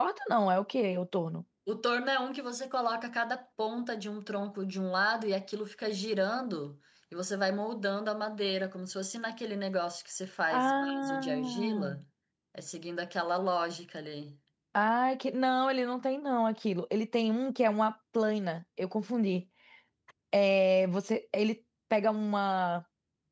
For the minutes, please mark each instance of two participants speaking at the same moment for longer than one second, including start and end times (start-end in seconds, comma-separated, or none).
10.5-12.0